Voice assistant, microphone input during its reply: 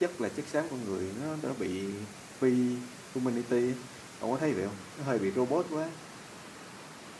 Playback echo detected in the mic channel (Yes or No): No